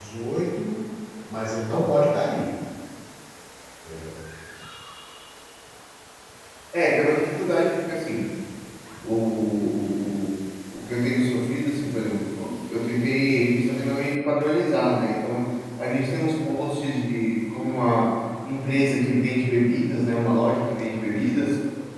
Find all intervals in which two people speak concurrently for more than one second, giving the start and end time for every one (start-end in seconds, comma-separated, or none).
none